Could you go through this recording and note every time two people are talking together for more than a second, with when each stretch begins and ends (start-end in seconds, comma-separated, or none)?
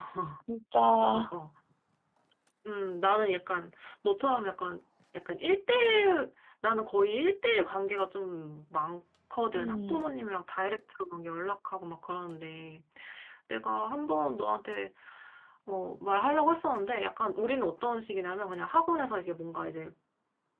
none